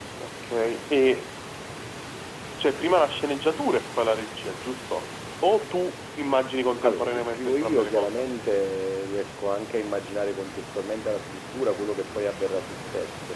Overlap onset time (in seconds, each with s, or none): 6.8 s